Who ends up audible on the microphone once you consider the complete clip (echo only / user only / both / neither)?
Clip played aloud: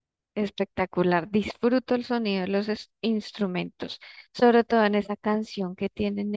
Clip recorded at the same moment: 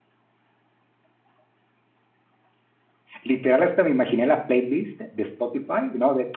user only